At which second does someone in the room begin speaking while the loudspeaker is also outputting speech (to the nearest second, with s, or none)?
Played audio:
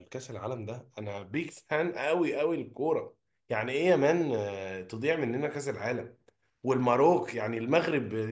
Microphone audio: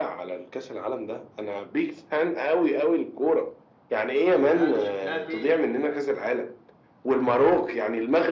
4 s